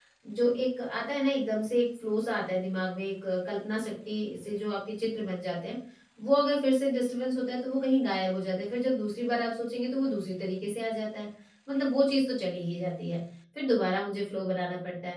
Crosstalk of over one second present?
No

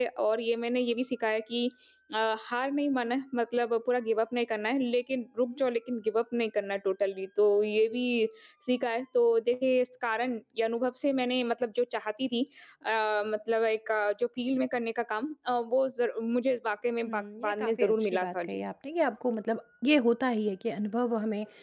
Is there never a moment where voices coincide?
No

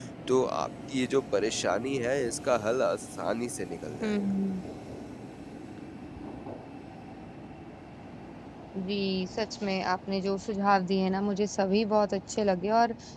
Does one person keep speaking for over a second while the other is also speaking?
No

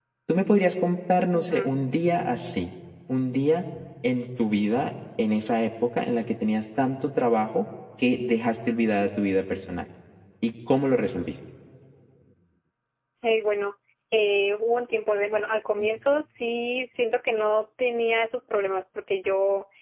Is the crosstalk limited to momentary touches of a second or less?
Yes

